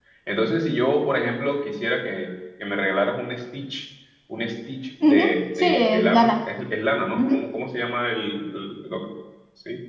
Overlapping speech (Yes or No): Yes